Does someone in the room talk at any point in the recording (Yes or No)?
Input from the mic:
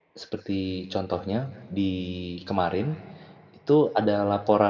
Yes